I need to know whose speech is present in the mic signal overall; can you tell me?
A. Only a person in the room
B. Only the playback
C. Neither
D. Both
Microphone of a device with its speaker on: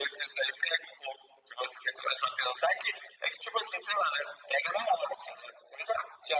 B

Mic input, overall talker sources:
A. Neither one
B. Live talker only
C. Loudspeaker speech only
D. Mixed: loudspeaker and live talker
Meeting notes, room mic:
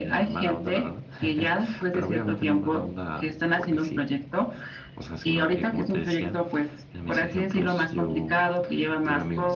C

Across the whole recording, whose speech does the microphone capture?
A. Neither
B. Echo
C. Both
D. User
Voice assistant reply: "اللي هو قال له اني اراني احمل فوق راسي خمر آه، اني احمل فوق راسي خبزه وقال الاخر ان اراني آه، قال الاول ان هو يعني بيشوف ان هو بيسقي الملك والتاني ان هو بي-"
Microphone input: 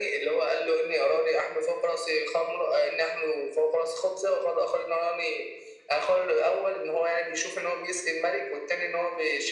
B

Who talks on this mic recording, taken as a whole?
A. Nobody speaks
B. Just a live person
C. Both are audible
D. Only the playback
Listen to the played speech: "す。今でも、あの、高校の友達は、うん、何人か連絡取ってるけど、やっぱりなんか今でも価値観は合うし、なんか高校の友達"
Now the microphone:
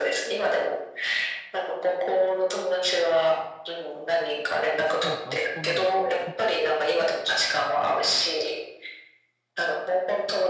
C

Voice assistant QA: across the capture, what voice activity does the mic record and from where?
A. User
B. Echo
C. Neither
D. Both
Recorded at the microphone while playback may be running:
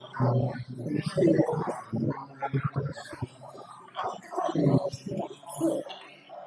B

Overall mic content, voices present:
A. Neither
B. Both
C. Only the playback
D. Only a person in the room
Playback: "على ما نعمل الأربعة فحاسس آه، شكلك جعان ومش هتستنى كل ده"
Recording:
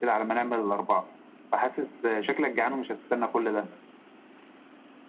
C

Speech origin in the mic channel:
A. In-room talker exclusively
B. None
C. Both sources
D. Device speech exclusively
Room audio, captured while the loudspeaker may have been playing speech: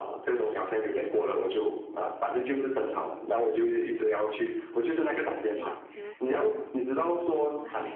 C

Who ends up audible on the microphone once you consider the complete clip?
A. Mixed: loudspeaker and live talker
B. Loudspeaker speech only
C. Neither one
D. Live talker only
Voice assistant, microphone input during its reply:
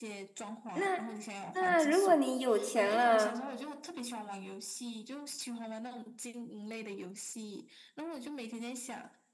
A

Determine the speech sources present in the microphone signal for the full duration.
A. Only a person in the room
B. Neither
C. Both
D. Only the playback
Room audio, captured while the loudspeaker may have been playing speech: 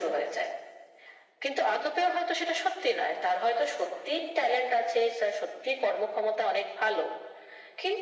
D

